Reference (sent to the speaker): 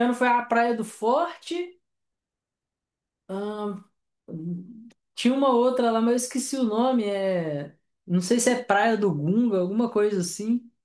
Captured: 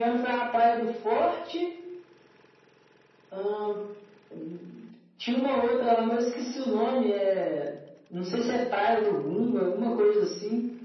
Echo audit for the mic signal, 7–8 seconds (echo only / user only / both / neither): echo only